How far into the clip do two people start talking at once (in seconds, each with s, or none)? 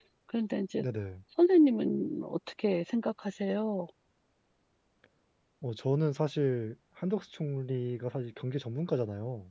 none